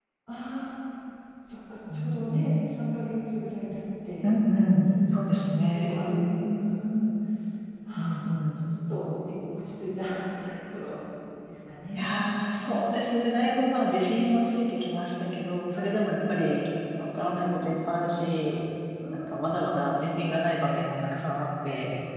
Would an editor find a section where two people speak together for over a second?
Yes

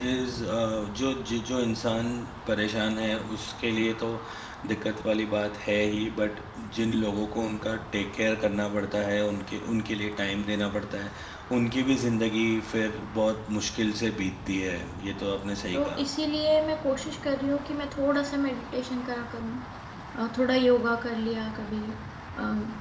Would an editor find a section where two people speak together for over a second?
No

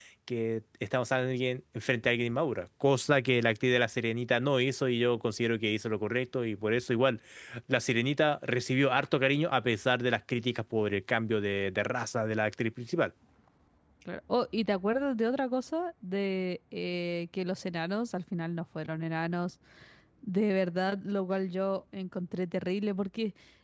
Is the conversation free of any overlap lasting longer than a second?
Yes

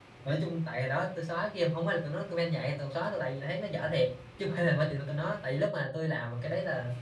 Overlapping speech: No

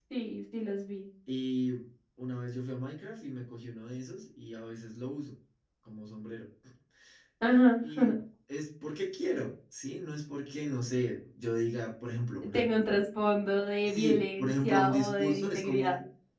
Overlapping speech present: Yes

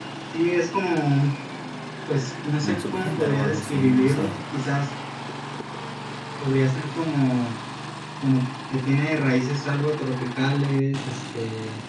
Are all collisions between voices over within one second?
No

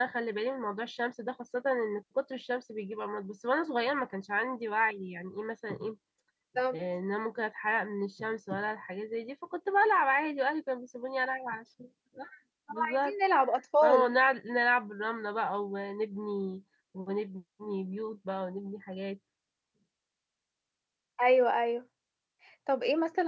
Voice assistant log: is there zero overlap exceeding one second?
Yes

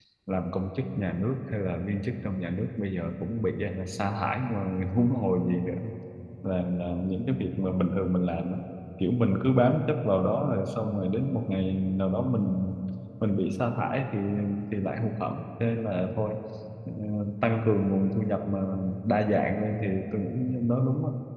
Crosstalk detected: No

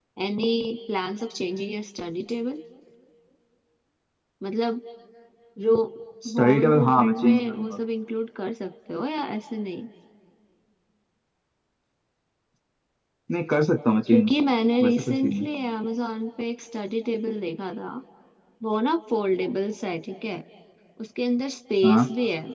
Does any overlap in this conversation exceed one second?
Yes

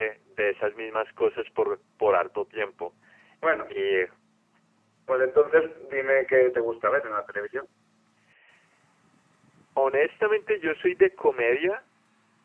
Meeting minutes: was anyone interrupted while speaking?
No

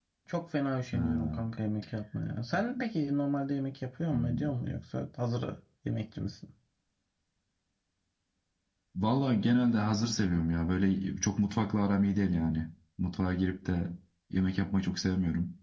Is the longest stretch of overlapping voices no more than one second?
Yes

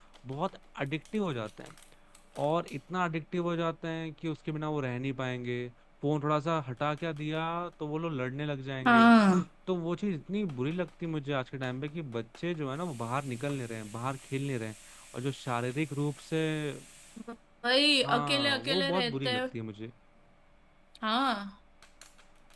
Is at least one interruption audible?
Yes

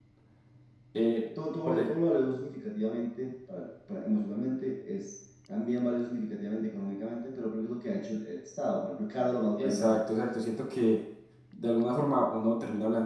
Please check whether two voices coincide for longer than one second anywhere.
No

